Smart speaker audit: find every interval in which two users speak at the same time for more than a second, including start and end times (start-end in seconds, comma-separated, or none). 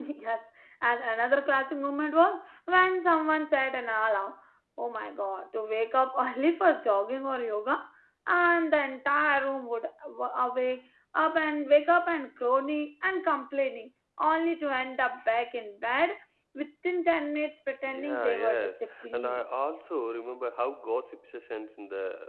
17.8-19.4